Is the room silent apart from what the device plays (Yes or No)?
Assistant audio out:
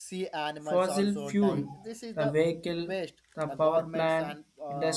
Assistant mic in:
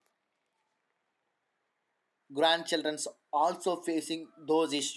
No